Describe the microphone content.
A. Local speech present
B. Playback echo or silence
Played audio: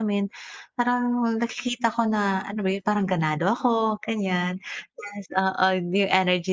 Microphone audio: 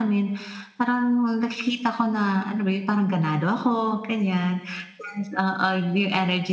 B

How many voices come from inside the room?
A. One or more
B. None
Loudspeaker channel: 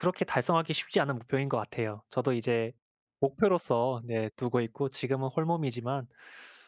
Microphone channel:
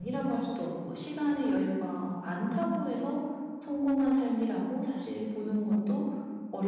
A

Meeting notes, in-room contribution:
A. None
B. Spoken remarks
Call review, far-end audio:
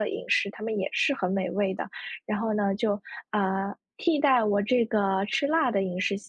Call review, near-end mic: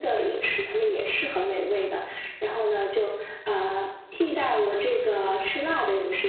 A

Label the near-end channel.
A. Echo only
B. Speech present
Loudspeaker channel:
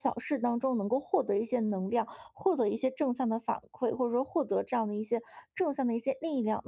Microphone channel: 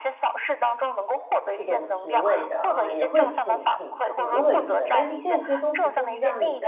B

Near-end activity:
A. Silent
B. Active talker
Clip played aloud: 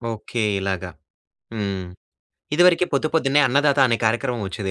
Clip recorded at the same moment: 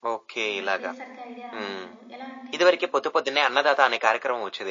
B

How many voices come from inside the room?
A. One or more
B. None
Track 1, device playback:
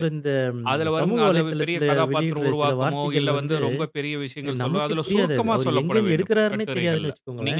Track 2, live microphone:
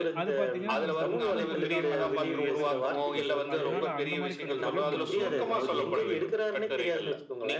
A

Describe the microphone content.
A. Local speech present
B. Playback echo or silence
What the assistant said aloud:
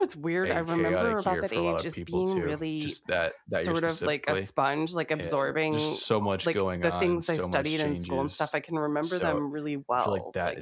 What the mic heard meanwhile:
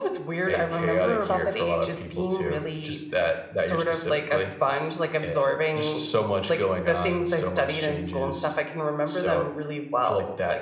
B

